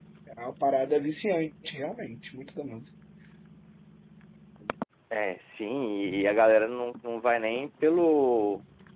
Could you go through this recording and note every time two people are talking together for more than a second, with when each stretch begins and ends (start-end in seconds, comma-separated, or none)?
none